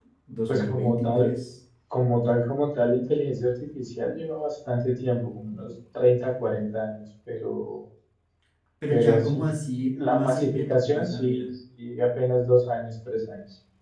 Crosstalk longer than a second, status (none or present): present